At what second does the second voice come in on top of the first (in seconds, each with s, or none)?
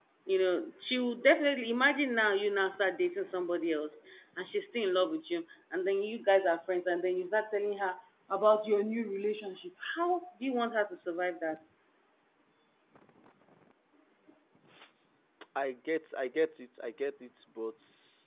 none